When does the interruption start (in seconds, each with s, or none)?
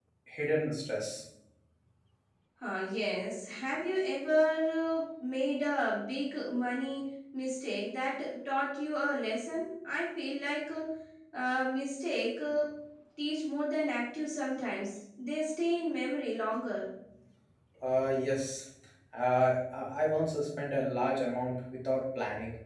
none